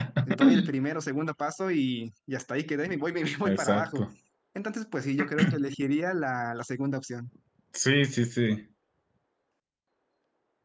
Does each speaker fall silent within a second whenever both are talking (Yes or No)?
Yes